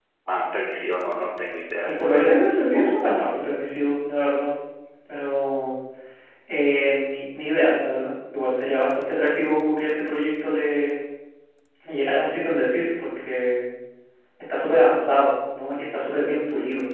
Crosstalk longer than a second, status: present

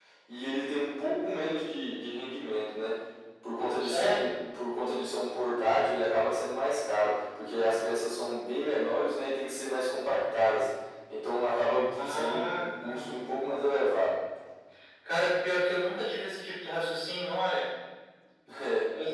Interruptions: present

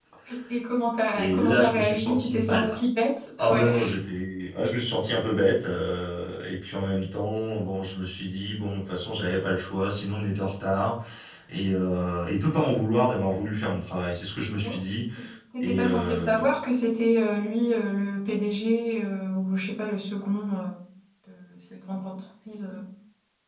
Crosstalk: present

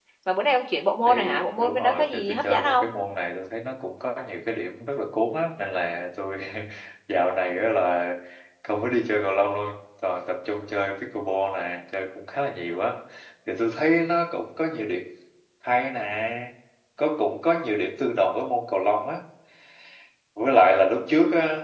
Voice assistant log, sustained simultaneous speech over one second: present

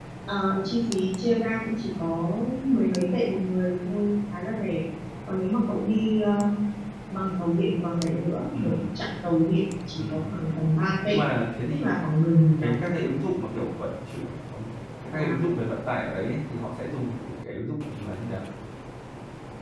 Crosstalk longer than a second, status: present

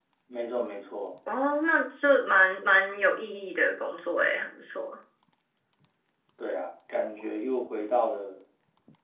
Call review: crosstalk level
none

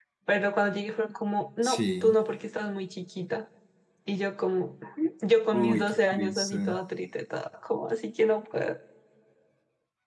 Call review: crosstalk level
present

